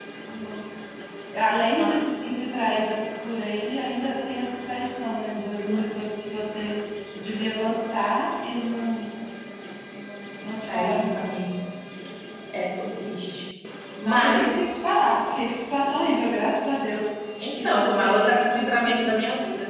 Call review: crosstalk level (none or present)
present